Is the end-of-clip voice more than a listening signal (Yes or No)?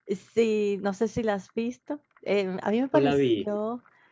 No